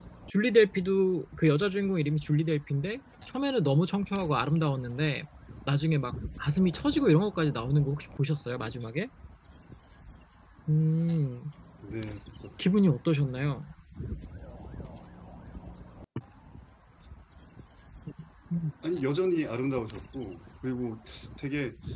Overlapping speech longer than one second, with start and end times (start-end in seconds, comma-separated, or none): none